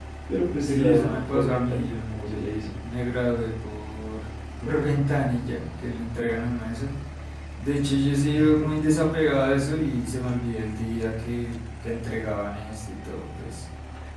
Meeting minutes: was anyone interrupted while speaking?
Yes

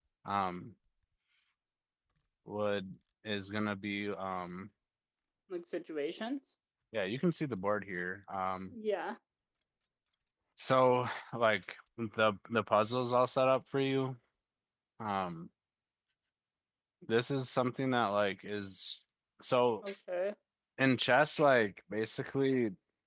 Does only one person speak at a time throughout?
Yes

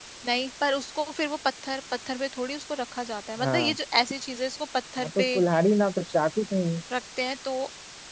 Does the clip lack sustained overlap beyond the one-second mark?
Yes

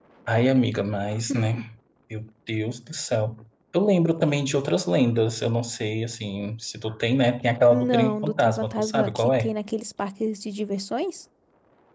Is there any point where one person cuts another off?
Yes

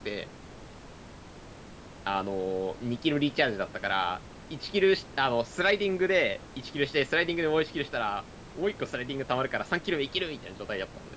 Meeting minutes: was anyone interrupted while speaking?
No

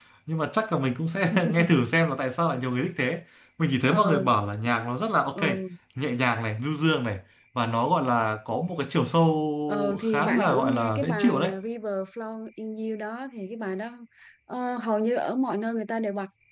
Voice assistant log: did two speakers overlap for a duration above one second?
Yes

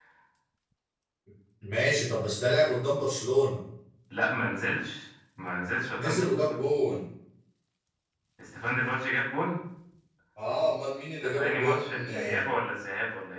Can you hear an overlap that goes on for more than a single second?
Yes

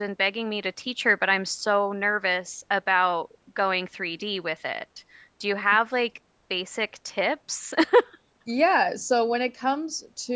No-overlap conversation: Yes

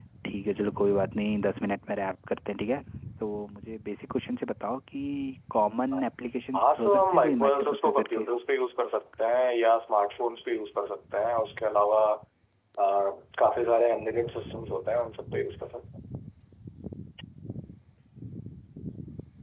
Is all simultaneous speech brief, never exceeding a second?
No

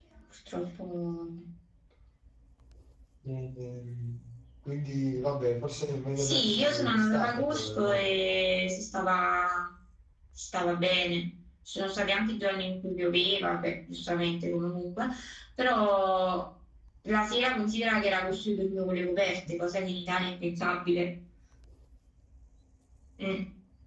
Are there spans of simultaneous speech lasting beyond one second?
Yes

